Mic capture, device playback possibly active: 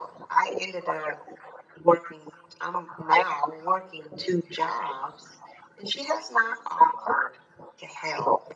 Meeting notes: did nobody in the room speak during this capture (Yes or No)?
Yes